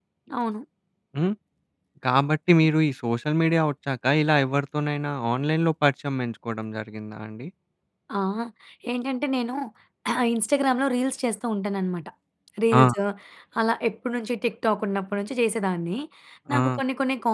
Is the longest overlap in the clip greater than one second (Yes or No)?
No